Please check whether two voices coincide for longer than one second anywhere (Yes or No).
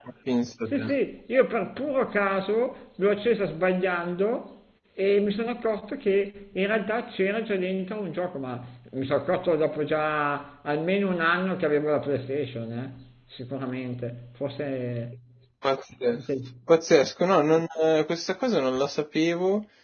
No